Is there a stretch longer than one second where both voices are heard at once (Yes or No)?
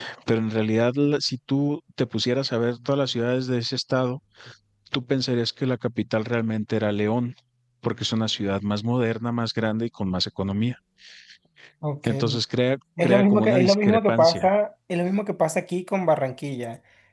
Yes